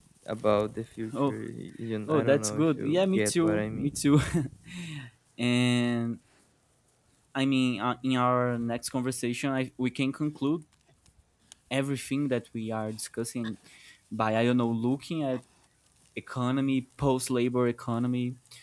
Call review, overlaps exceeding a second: present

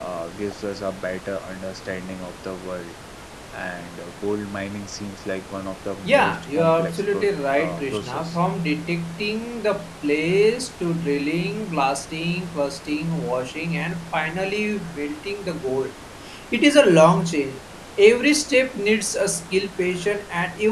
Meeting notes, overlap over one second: present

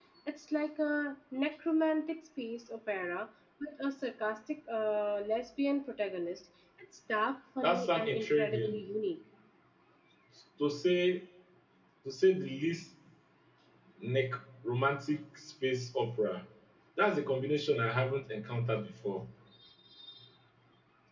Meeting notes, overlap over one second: present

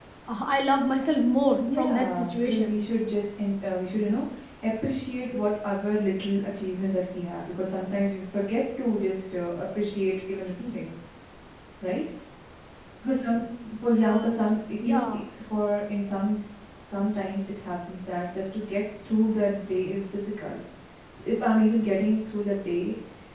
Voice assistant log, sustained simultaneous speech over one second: present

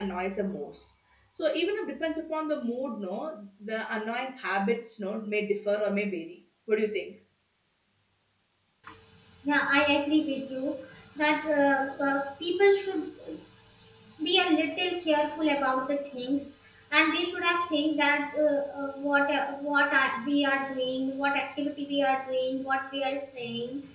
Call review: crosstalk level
none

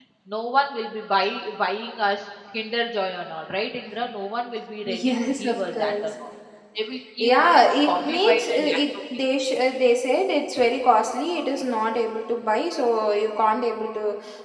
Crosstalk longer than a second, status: present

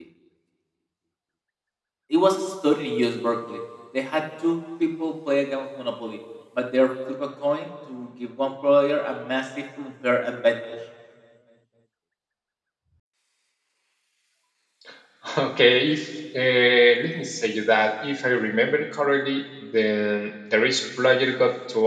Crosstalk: none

